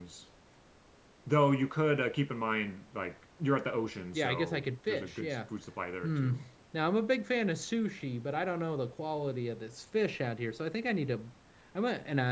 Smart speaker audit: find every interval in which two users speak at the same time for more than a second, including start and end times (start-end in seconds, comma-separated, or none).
4.2-5.4